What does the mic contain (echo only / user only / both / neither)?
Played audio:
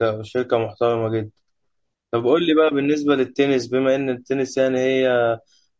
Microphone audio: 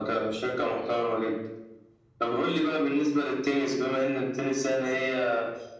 echo only